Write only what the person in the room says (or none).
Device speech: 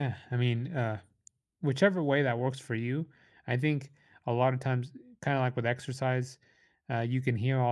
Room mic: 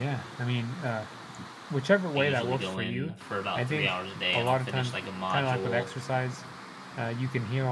I usually go in for about 3 hours a day and I'll finish, like, a module.